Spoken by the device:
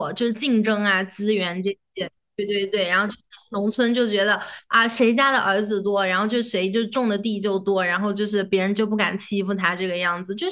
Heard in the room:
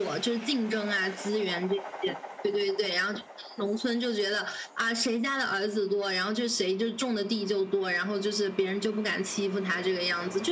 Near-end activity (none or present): none